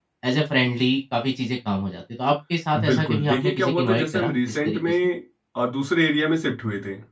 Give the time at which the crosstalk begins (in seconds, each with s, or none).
2.8 s